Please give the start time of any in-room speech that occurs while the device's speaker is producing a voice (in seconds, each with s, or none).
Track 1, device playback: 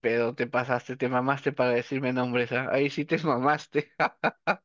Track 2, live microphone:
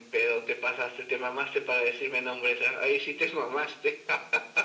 none